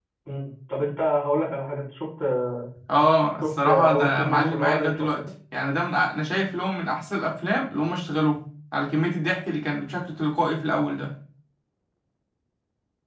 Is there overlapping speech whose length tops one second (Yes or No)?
Yes